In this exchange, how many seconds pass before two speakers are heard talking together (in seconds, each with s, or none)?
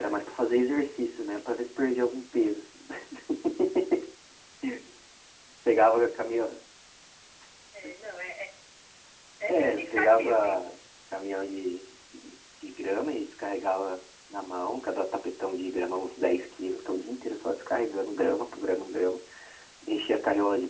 9.5 s